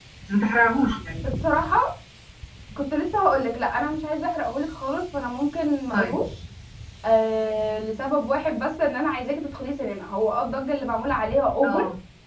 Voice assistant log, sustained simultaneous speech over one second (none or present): none